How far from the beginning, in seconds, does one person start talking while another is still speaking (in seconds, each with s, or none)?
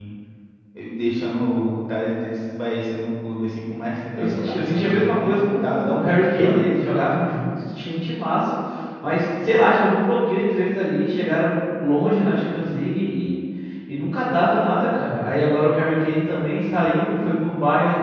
4.2 s